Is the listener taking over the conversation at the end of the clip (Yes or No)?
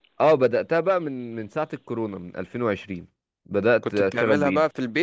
Yes